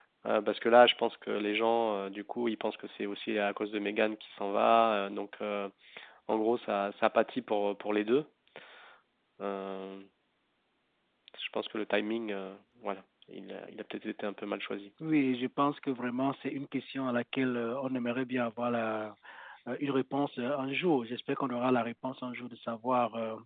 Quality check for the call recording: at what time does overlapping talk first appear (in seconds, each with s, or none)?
none